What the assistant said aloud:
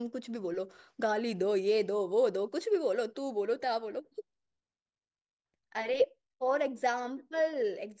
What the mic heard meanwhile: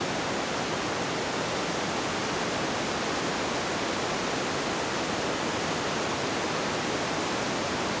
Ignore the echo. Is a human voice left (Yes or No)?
No